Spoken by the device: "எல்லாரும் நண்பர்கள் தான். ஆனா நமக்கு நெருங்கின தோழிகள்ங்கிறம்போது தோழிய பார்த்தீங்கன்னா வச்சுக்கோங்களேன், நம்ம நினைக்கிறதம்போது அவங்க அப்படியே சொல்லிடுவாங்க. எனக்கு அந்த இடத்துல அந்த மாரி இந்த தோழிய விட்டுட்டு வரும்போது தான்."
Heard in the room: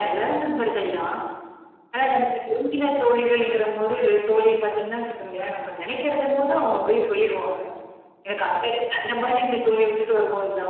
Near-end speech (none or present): none